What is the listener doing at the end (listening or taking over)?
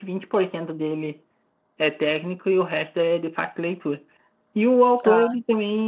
listening